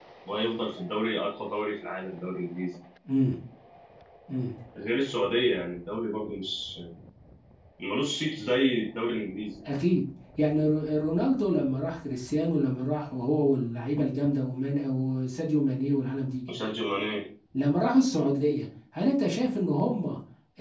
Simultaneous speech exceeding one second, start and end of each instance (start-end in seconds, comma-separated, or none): none